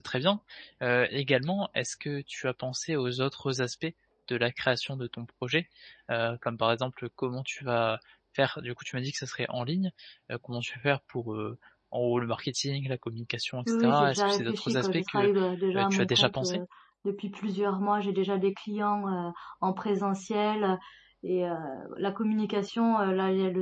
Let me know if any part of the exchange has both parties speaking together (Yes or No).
Yes